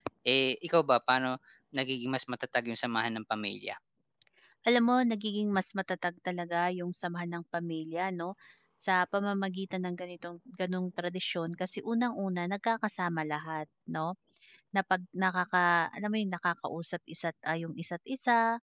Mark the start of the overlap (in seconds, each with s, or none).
none